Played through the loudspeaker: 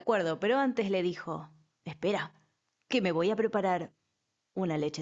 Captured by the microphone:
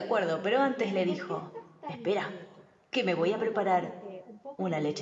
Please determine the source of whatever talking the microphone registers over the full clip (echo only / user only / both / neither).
both